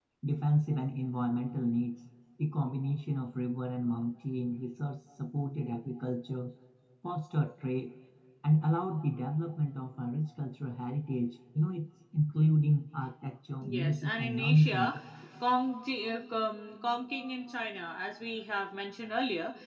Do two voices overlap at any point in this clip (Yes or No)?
Yes